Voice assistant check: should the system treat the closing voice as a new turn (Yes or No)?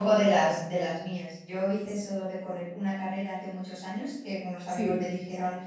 No